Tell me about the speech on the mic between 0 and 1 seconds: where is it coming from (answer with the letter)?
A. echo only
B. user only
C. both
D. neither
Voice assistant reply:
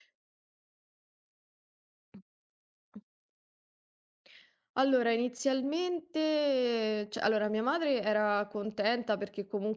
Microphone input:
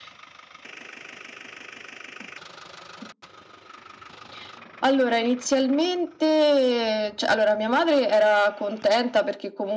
D